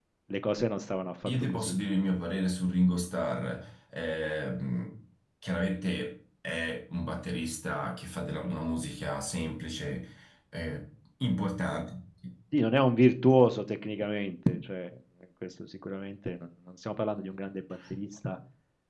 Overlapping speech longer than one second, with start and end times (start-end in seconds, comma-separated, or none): none